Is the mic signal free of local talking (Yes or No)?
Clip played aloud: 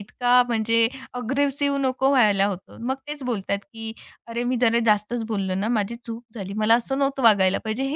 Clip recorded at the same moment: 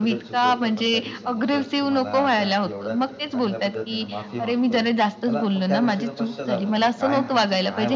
No